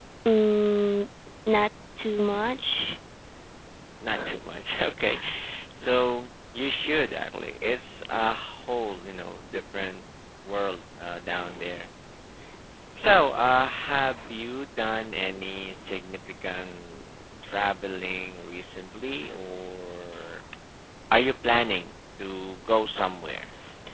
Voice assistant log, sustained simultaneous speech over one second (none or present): none